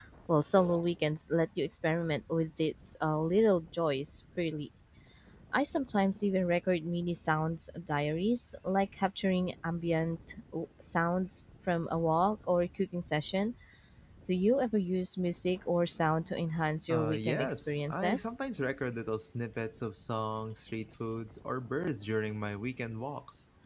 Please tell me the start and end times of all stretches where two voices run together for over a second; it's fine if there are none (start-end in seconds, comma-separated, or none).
16.9-18.2